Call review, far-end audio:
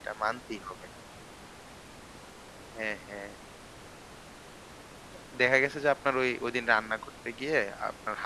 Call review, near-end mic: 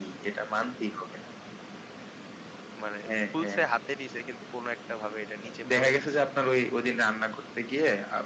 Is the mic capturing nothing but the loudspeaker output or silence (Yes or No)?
No